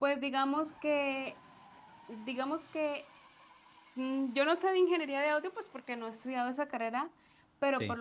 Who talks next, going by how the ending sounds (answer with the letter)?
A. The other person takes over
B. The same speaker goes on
B